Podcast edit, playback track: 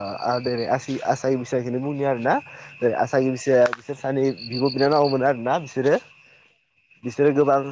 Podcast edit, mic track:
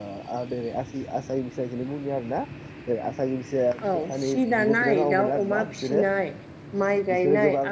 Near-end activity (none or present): present